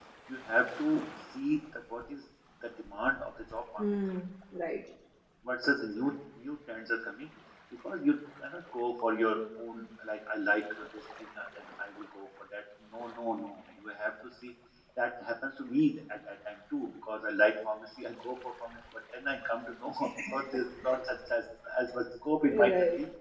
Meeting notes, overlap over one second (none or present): none